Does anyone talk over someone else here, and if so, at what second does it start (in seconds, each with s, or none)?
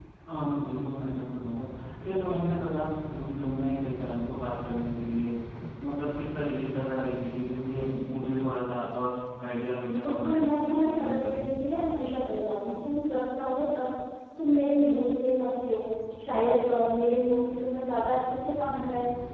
10.0 s